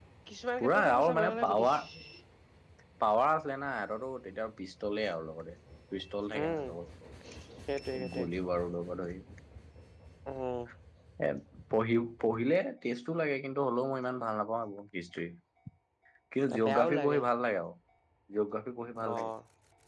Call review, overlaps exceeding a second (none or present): present